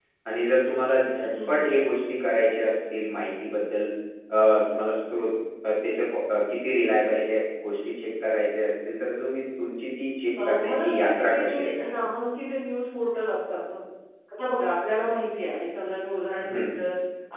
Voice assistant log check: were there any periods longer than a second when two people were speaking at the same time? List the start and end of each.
10.4-12.0

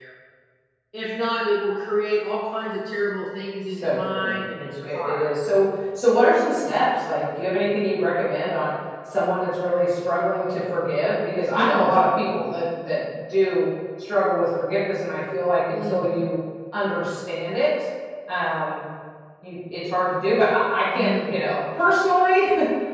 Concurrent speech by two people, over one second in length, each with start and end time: 3.8-5.2

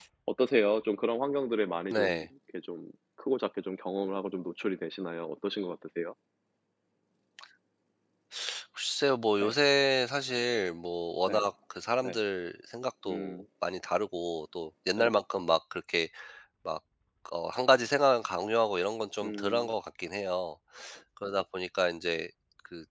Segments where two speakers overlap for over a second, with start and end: none

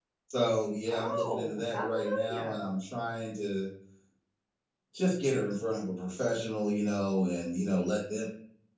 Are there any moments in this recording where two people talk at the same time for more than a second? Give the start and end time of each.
0.9-2.6

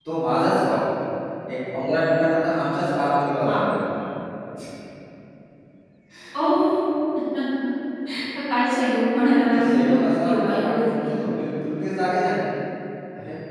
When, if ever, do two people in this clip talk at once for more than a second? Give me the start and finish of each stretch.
9.3-11.1

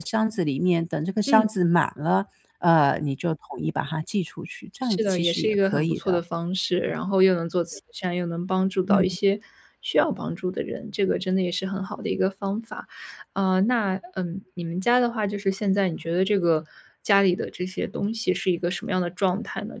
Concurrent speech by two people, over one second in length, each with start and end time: 4.8-6.2

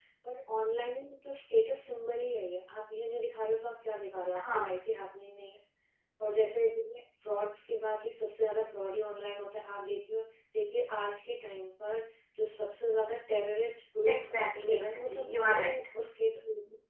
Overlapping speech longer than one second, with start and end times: 14.1-15.8

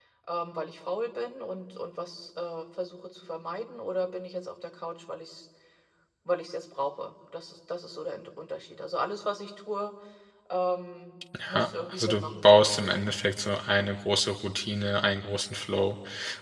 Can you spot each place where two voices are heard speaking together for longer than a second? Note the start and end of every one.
11.5-12.9

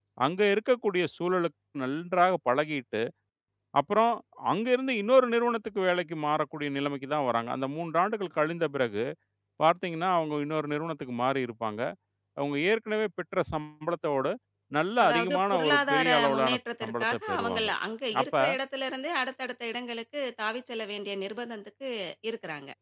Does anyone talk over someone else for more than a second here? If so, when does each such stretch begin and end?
15.0-17.7

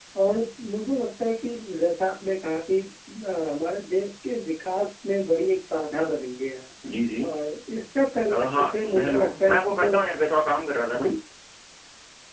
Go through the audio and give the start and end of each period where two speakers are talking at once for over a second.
8.3-10.0

